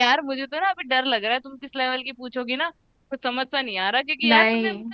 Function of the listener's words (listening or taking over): listening